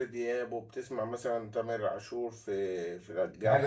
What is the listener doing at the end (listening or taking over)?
taking over